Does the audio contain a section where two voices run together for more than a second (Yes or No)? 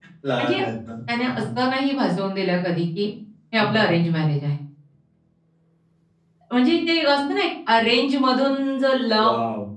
No